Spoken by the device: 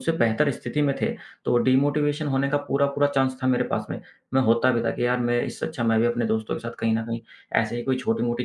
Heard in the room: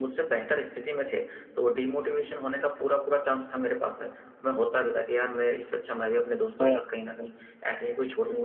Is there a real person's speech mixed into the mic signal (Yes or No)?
Yes